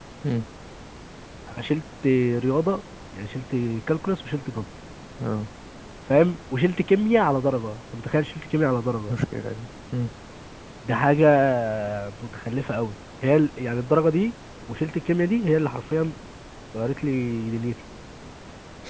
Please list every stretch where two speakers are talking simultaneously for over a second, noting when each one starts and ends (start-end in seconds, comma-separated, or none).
none